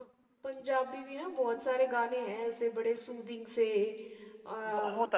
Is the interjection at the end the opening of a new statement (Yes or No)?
Yes